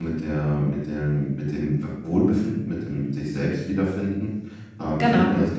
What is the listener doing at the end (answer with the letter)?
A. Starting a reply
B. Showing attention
B